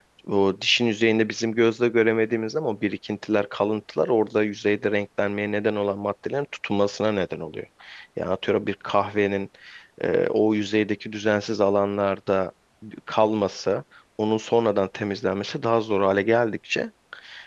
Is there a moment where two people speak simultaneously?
No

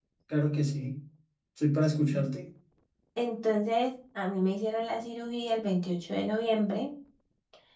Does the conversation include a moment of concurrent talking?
No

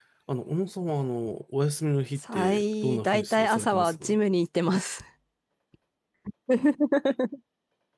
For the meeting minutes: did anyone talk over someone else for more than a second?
Yes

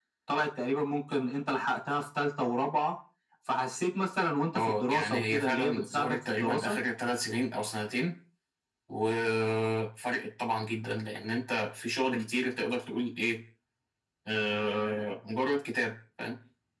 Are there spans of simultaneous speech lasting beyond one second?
Yes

